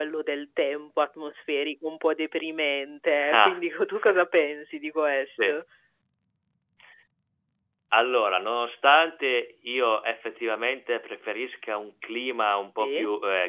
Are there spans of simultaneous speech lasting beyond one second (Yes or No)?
No